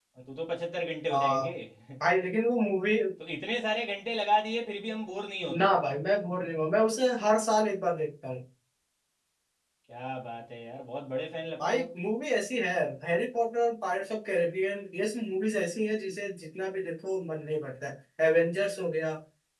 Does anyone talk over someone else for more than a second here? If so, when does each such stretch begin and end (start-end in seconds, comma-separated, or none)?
none